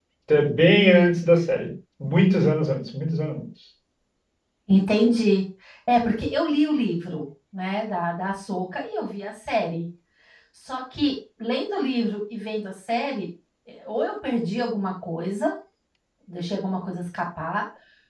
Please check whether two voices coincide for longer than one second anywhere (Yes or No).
No